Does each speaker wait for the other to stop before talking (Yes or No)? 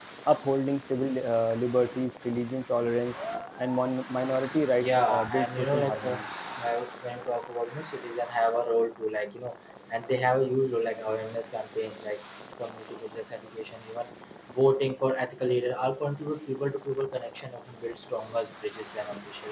No